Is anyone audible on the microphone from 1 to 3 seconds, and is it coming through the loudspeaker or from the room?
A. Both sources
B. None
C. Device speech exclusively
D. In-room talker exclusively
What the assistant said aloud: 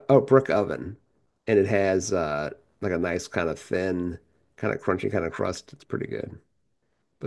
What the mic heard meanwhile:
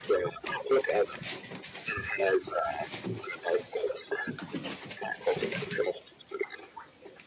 C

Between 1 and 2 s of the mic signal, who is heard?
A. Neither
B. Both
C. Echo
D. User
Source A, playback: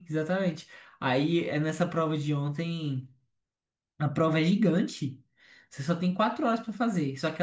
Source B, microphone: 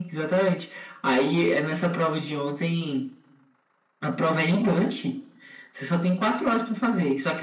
C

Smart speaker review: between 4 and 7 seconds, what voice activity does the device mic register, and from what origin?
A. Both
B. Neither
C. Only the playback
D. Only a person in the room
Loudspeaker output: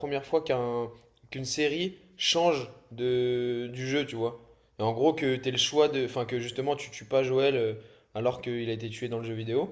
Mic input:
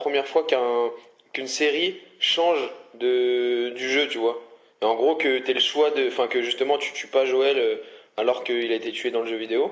C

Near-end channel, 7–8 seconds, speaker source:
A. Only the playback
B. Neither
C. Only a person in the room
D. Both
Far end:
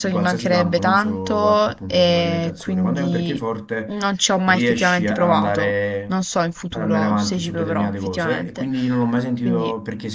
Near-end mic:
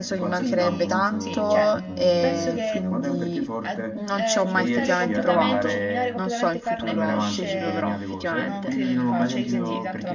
D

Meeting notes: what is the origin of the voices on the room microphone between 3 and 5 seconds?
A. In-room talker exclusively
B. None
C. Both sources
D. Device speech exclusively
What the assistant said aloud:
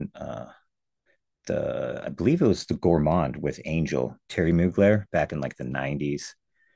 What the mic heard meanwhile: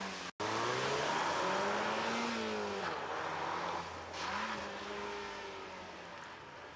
B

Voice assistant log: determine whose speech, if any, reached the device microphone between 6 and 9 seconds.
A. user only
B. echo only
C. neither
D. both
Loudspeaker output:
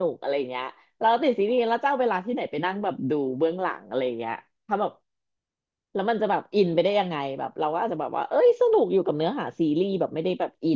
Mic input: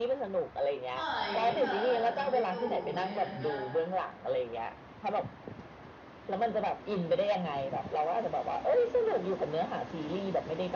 B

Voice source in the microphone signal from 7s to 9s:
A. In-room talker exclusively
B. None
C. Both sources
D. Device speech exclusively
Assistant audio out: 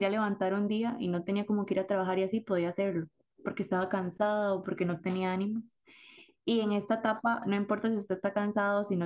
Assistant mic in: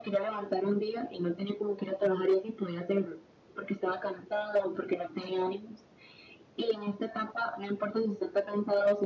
D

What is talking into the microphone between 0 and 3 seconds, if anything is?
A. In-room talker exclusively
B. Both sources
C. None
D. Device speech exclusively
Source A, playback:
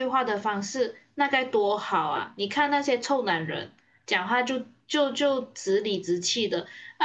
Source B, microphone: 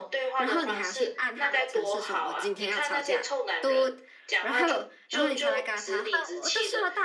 B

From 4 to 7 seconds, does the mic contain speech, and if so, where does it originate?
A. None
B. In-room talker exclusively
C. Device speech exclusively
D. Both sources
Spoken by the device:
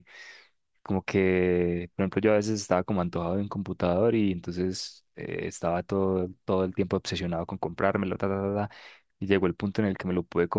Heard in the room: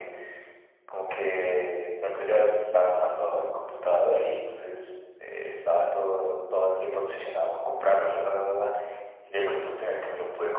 C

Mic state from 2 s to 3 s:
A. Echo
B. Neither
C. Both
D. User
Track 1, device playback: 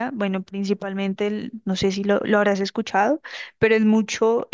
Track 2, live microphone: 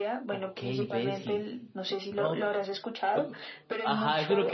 C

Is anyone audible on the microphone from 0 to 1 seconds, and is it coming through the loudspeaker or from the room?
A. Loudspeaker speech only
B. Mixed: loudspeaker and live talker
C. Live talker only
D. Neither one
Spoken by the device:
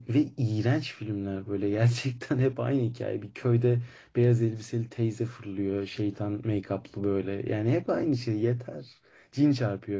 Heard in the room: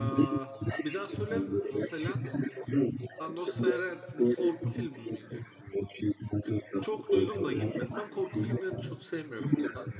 B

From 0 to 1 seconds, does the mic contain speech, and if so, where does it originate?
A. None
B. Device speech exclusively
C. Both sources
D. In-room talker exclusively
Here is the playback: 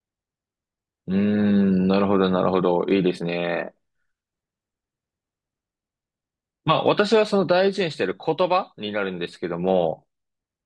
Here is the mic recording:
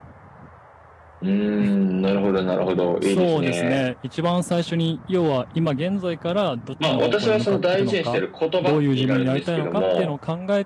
A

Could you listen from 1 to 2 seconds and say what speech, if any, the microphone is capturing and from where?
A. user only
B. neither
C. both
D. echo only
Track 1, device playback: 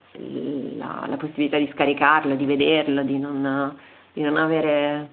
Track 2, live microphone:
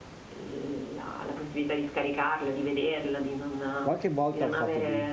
D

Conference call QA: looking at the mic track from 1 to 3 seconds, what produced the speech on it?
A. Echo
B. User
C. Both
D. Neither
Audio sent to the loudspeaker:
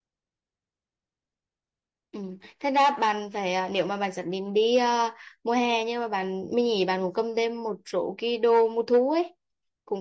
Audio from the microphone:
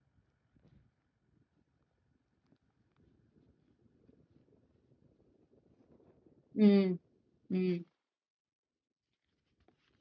D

